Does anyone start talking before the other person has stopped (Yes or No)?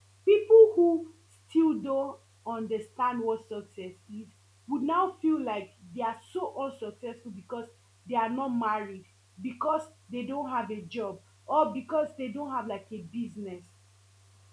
No